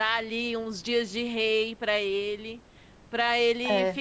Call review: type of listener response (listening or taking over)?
listening